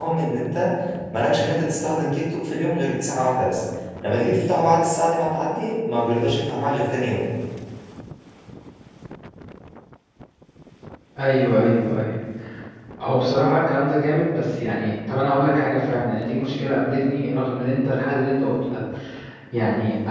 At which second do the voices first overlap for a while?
none

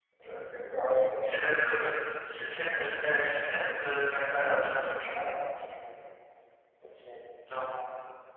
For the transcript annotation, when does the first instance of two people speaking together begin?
none

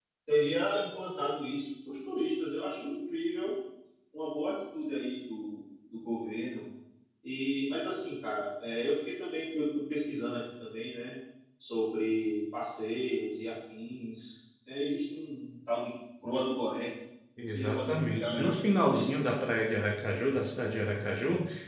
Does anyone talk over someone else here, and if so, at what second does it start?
17.4 s

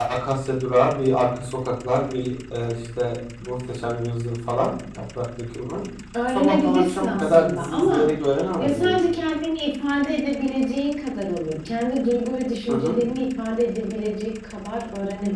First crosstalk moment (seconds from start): 6.3 s

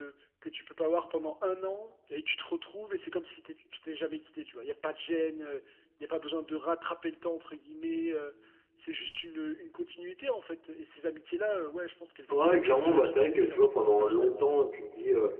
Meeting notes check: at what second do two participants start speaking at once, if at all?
12.3 s

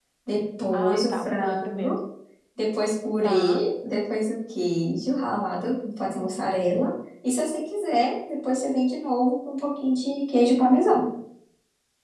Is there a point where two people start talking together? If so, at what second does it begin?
0.7 s

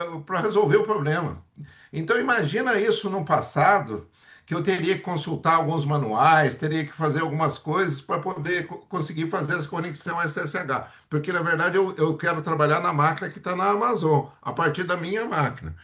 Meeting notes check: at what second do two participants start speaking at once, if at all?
none

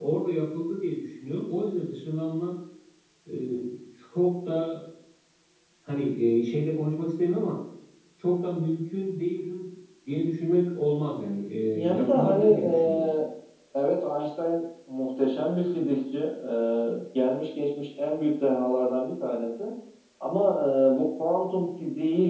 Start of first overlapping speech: 11.9 s

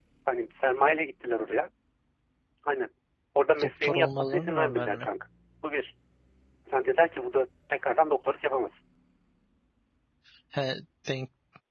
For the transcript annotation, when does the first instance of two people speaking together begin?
3.6 s

